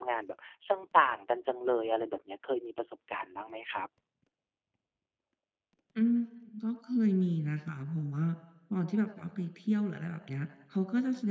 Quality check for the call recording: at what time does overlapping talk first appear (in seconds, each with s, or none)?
none